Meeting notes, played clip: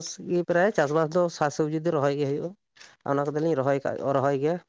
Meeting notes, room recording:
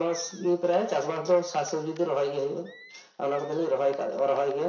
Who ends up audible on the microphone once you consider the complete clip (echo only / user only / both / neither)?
echo only